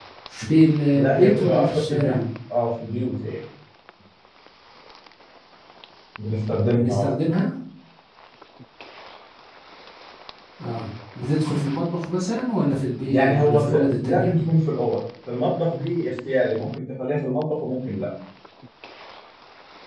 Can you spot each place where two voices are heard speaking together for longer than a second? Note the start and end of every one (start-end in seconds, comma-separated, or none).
0.9-2.2, 13.1-14.3